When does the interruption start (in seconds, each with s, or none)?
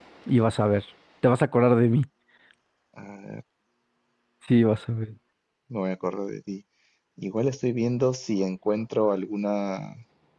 none